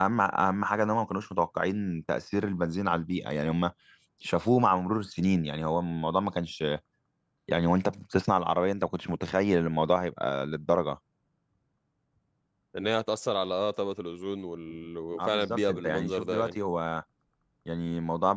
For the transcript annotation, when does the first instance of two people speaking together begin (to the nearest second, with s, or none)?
15 s